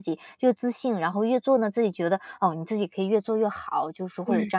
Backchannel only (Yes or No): Yes